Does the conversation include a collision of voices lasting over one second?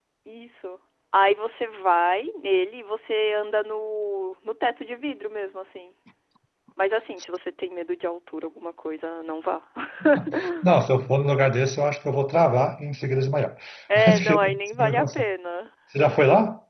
Yes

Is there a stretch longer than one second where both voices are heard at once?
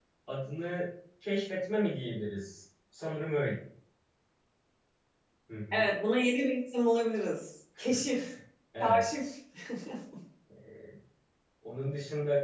No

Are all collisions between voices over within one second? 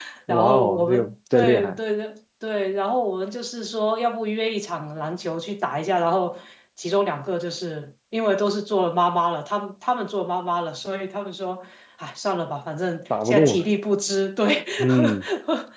No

